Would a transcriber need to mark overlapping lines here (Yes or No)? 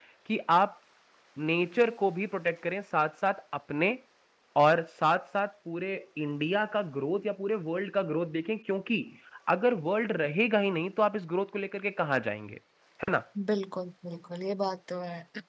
No